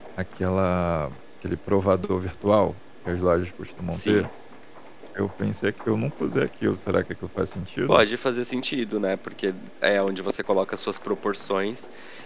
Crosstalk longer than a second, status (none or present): none